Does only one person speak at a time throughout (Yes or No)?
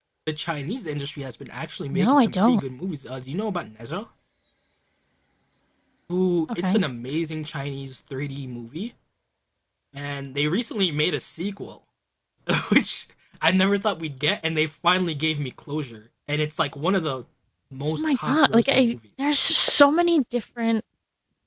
No